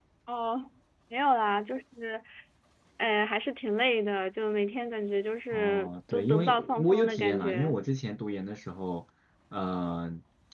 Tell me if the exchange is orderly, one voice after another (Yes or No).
No